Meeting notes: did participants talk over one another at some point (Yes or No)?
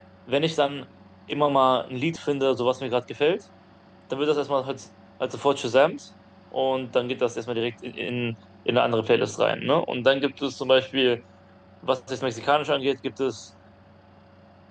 No